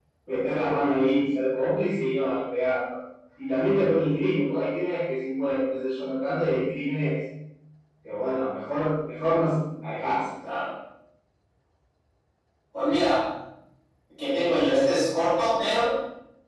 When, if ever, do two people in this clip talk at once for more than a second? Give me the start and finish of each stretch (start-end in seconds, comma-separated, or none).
none